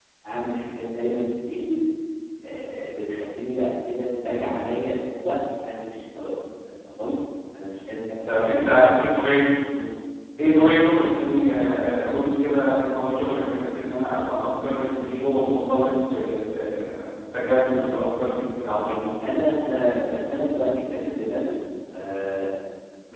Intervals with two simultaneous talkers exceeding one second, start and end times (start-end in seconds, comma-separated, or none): none